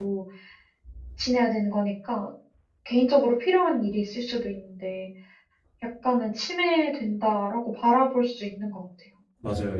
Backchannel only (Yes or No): No